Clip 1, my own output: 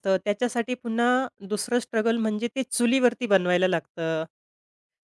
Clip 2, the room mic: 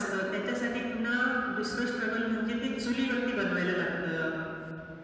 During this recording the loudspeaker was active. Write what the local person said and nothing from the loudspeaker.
none

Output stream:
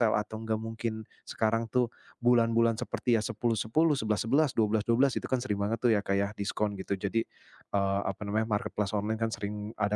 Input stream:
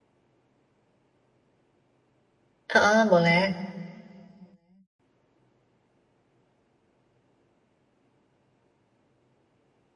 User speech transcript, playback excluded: Heeh, boleh.

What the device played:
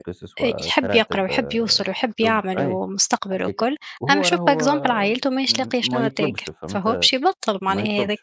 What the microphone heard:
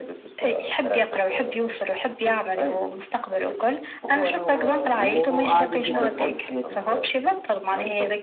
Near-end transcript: وعادي جدًا تواصل حياتك.

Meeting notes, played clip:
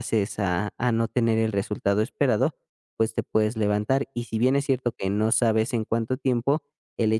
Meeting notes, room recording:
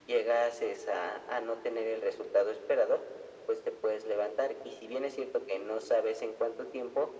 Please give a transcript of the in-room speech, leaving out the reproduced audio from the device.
none

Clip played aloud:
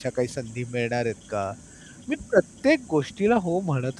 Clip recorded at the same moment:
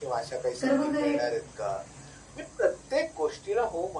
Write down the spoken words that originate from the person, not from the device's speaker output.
तर मग हे

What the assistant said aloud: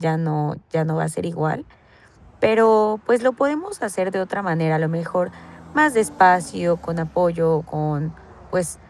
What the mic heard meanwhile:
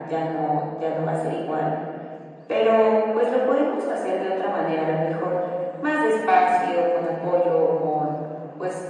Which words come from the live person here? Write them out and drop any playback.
none

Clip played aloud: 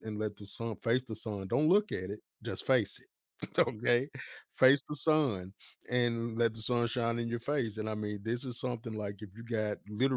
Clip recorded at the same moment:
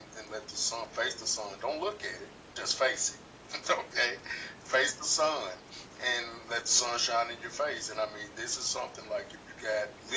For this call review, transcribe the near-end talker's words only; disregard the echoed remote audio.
none

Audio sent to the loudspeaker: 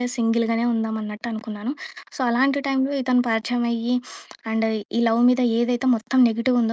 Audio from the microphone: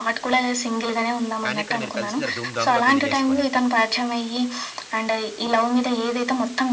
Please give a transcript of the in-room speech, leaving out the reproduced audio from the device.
కానీ ఇక్కడ మీరు కలిసేసారు ధూమ్ ధామ్‌గా పెళ్లి జేసుకొని.

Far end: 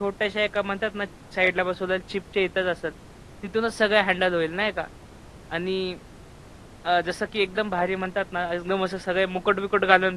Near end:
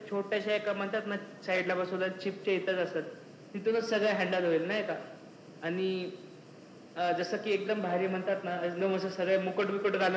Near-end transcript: none

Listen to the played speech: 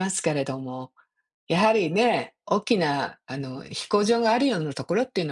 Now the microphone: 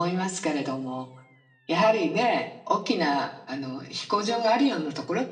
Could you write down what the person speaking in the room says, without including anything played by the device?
none

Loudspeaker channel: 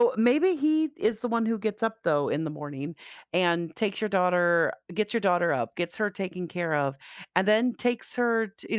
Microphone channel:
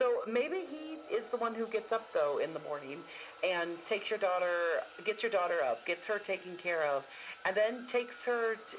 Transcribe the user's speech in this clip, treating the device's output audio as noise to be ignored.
none

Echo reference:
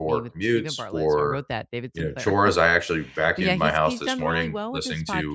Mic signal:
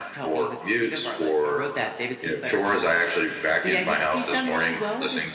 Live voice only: none

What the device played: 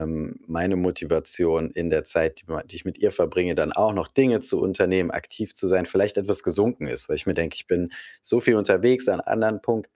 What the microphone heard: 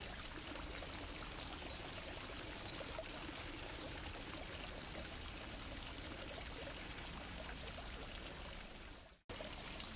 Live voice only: none

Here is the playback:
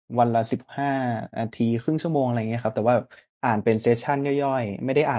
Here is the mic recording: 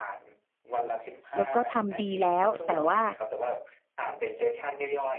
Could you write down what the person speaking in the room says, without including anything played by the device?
แล้วก็ทำดีแล้วแต่ว่า

